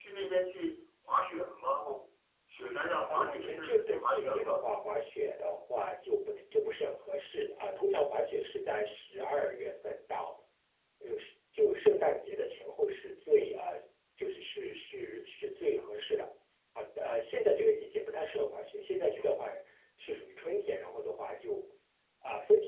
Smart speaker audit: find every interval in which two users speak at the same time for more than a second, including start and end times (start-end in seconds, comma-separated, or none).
3.1-4.7